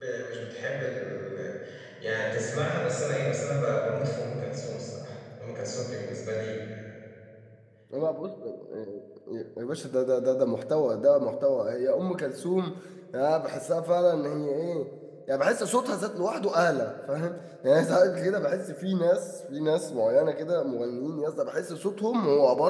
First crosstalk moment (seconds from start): none

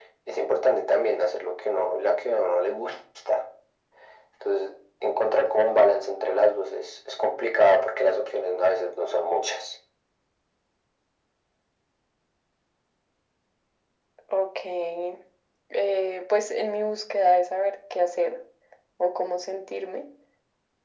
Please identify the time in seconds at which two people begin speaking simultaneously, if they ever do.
none

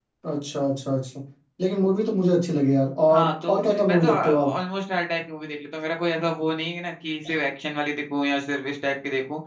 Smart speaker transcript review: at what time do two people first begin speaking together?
3.1 s

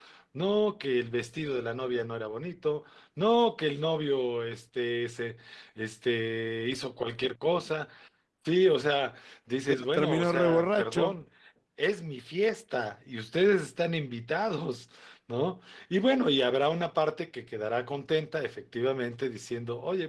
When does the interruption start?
9.7 s

